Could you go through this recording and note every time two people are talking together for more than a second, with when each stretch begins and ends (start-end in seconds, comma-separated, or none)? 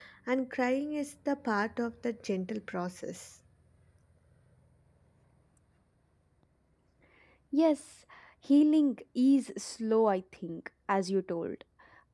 none